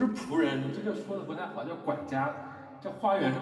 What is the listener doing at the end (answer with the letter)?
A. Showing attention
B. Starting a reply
A